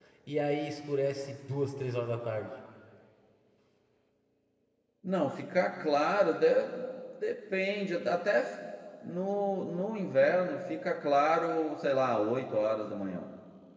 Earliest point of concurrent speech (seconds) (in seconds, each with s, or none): none